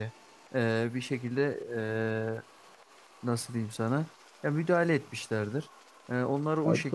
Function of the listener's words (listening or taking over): listening